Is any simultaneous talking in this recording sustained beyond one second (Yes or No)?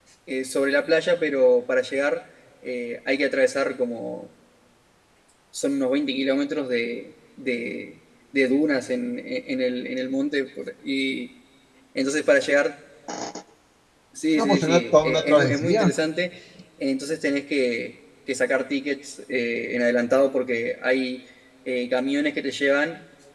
Yes